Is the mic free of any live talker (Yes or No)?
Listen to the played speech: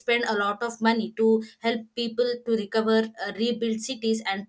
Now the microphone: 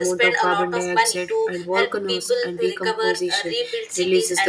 No